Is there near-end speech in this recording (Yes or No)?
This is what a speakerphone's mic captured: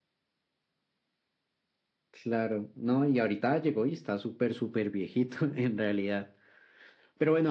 No